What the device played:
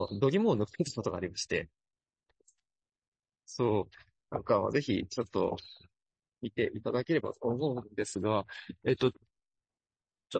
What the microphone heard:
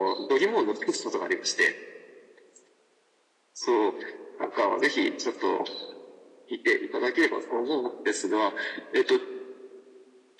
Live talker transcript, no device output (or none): none